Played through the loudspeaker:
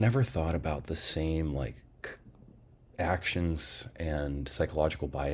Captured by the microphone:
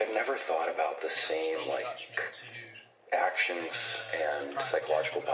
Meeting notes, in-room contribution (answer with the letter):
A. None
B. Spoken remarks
B